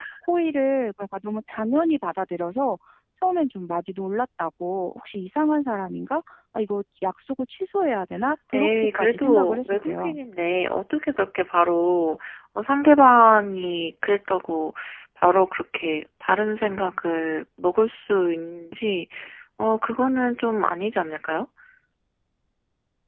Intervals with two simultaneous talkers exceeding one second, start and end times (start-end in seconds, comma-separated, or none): 8.5-10.2